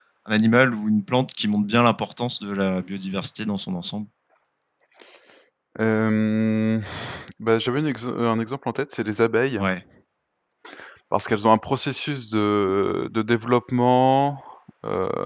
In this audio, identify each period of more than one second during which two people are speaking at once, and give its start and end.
none

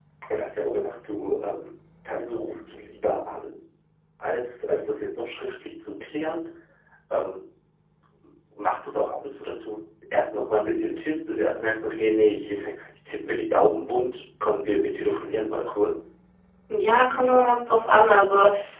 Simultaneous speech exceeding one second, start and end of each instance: none

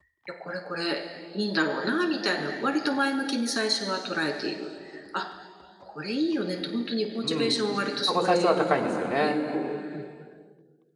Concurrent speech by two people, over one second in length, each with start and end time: none

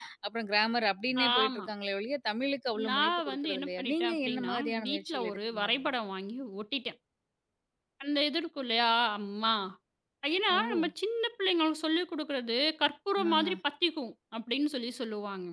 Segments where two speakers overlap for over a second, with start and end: 2.9-5.8

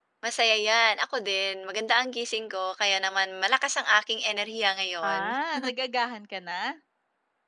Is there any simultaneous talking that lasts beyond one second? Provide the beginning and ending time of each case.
none

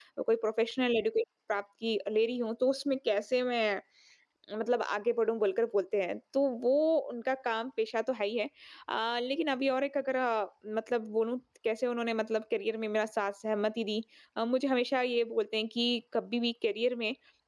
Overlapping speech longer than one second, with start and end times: none

